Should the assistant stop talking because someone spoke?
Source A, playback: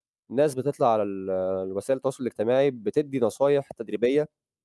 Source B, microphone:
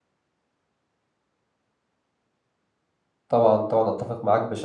Yes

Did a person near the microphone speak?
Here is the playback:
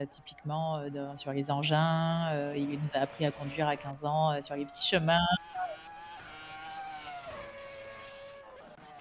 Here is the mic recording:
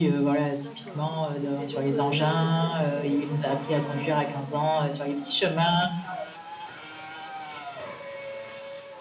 Yes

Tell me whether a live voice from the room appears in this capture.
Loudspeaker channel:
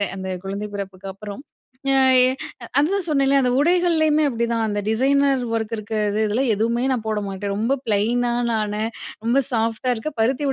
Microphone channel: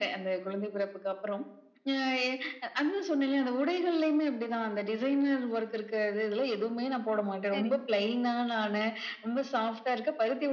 Yes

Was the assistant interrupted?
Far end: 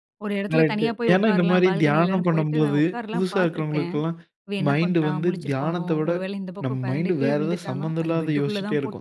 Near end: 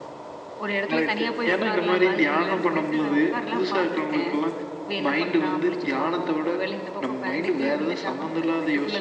No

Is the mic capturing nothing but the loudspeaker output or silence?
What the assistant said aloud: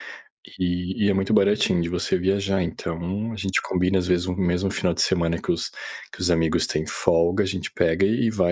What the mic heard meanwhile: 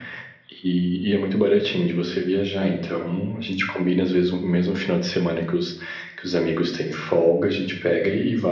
Yes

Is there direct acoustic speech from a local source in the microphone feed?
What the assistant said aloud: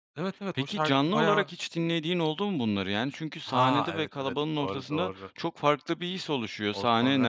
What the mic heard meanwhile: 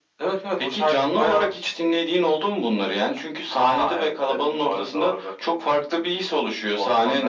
No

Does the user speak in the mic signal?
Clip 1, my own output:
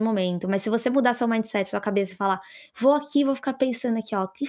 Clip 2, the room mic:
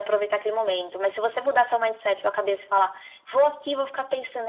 No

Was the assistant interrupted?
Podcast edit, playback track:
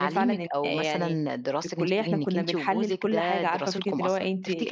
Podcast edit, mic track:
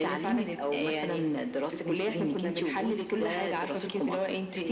No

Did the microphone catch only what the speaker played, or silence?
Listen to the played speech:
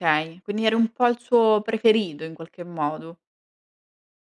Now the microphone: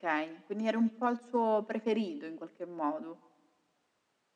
Yes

